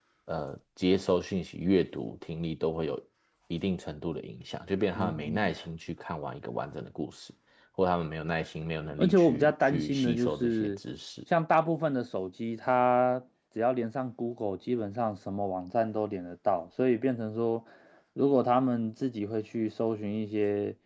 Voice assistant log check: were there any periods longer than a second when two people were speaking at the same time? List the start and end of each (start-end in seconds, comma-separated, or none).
9.0-10.7